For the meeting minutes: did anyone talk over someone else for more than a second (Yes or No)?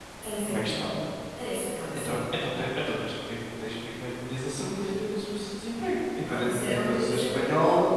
Yes